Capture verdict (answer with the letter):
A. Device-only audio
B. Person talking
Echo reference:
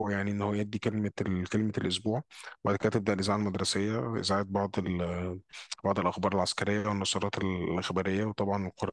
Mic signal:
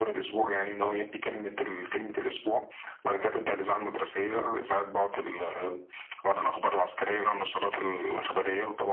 A